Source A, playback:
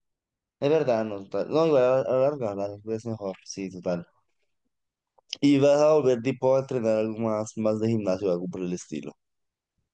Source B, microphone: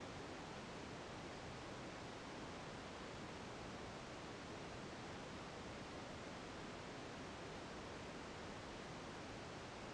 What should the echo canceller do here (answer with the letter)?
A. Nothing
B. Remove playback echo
A